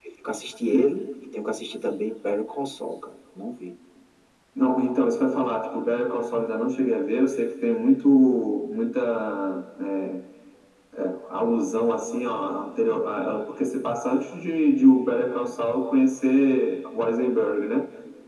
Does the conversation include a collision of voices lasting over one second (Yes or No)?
No